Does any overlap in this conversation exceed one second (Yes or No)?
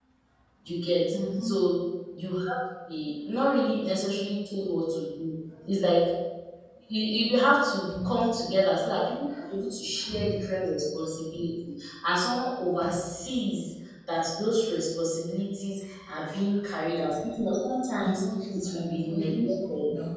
Yes